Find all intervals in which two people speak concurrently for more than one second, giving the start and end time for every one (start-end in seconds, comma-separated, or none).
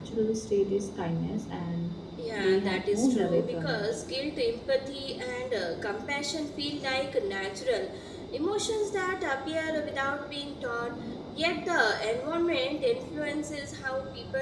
2.4-3.9